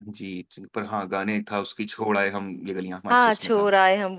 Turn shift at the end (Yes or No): Yes